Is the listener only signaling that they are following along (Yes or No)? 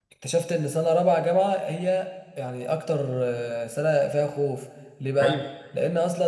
Yes